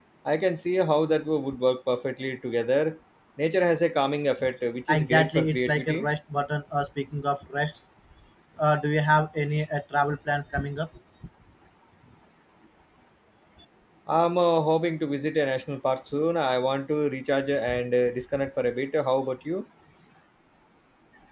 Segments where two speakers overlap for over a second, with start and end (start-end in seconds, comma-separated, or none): 4.9-6.1